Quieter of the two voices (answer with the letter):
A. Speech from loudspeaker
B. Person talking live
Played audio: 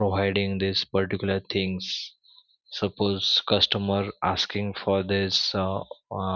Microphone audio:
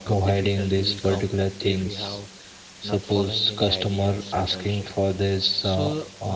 B